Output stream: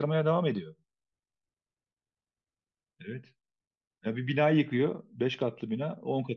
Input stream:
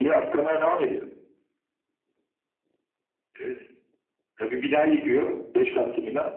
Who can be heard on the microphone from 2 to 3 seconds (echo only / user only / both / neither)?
neither